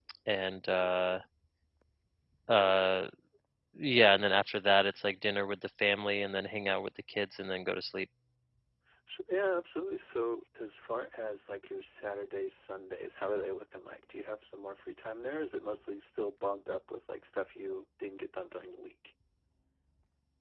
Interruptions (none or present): none